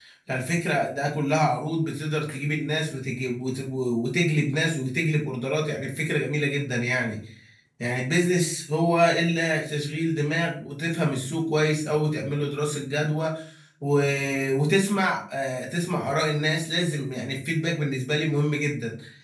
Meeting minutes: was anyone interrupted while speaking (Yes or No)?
No